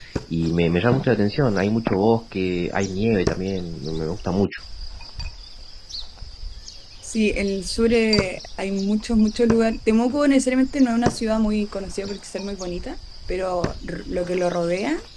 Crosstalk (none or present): none